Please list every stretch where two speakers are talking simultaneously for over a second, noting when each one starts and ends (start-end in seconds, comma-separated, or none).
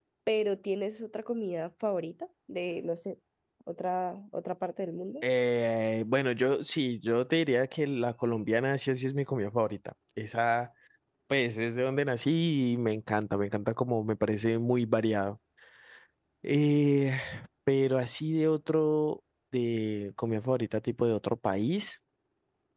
none